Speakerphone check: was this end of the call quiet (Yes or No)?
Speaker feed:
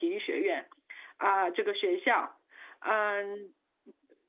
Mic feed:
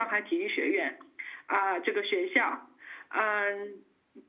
Yes